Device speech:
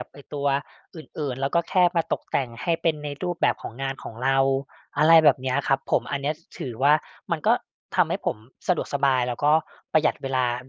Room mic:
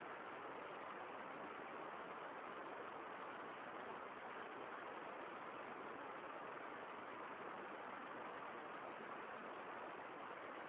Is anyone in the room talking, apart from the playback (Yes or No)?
No